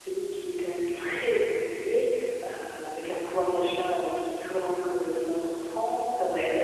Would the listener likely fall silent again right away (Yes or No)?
Yes